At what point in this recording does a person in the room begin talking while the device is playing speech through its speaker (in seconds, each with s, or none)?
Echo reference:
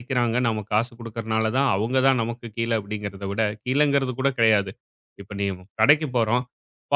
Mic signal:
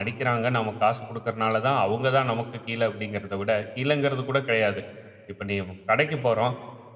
none